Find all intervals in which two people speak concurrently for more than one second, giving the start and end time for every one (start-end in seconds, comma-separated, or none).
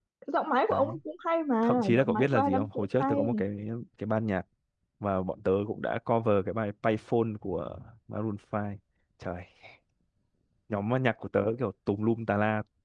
1.6-3.3